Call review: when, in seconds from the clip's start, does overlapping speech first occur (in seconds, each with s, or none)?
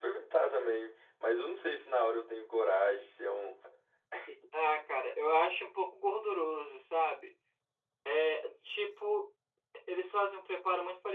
none